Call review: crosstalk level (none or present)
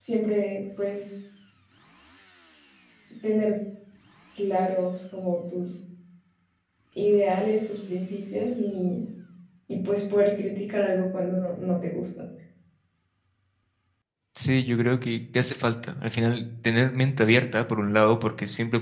none